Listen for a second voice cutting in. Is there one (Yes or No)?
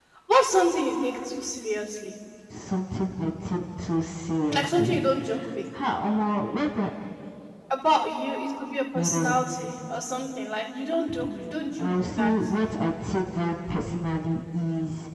Yes